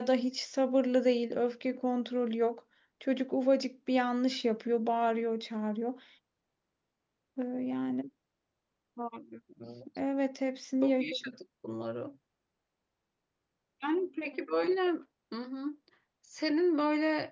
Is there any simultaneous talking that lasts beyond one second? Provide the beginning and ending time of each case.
none

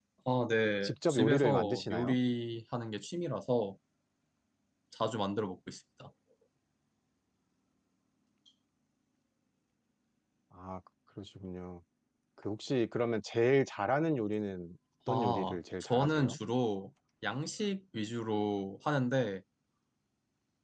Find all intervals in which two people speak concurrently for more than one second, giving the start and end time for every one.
0.8-2.1, 15.1-16.4

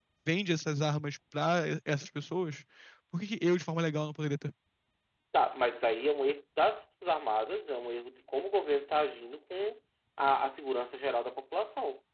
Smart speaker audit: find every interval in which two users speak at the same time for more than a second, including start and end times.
none

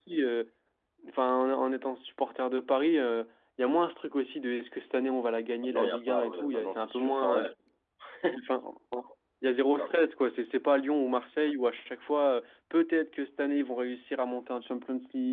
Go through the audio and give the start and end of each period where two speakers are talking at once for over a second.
5.6-7.5

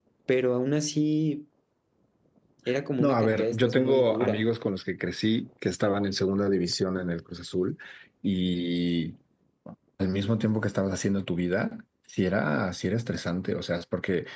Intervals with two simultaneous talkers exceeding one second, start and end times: 3.0-4.4

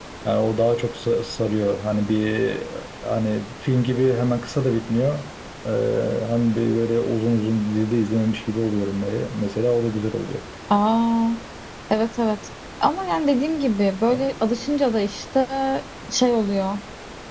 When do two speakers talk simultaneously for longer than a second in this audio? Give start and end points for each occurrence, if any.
none

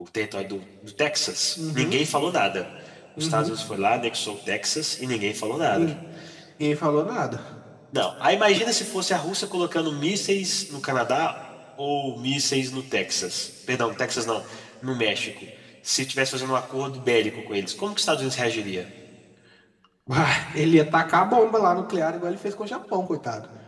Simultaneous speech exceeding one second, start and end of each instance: none

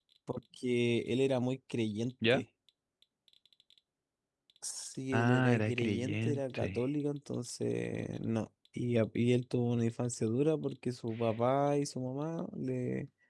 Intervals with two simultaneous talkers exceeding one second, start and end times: 5.1-6.8

